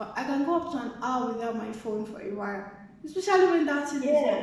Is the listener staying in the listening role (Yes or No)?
Yes